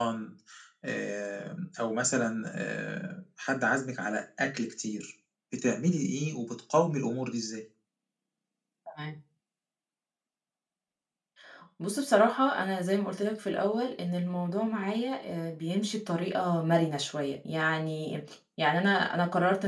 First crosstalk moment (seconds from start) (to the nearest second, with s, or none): none